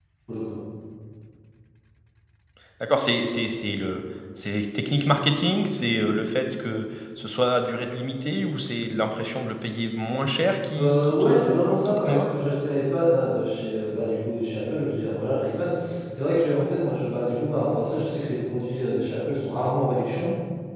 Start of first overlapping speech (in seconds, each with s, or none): 10.7 s